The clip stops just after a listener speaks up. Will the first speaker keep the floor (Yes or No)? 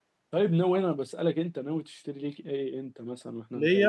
No